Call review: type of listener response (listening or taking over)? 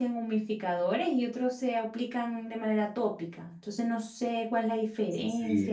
taking over